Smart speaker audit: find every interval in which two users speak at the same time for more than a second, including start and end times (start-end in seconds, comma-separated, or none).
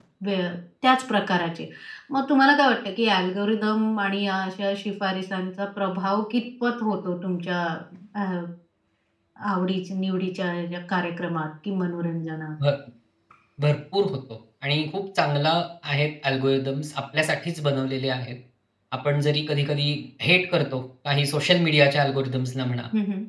none